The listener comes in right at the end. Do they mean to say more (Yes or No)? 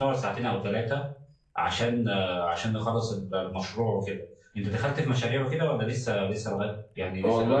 Yes